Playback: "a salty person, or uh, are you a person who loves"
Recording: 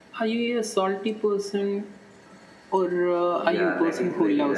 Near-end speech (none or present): present